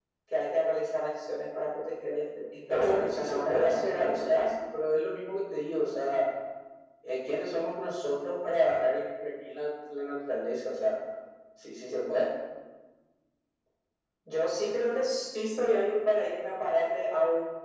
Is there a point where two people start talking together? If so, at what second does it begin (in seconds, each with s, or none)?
2.7 s